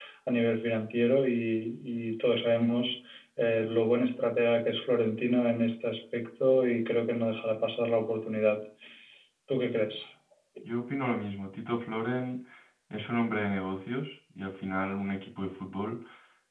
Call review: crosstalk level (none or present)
none